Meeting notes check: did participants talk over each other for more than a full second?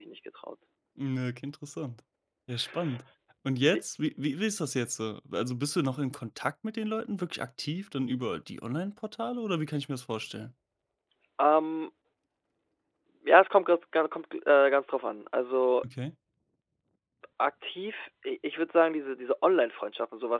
No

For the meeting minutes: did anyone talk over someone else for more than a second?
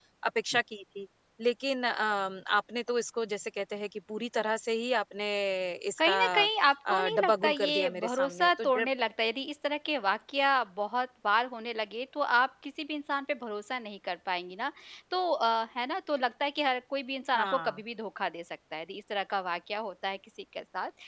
Yes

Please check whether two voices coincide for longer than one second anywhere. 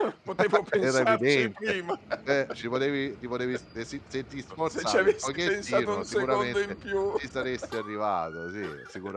Yes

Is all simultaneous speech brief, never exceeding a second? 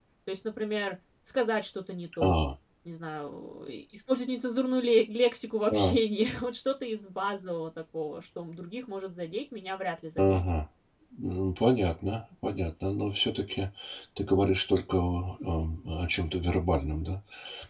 Yes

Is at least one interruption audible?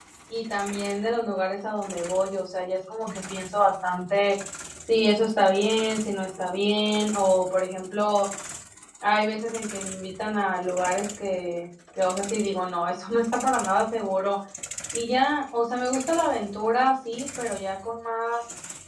No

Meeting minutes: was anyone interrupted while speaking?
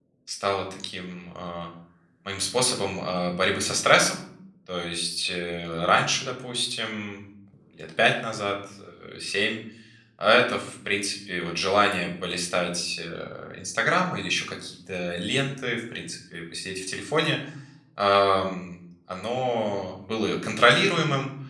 No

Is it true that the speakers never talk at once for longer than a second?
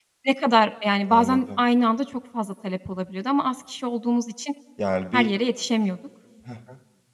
Yes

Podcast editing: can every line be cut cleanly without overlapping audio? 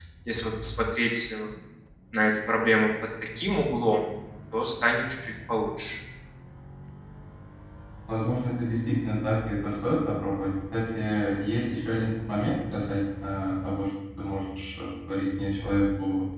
Yes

